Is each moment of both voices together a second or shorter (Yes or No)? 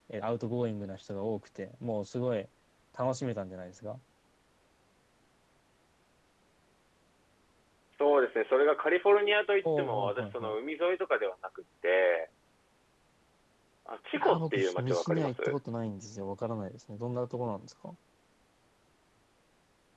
No